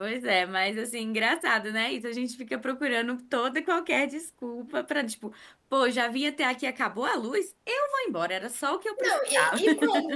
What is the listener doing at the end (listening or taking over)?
taking over